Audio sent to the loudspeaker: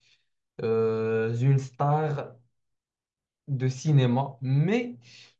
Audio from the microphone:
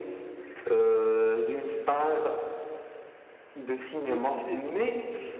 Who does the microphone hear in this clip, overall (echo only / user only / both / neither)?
both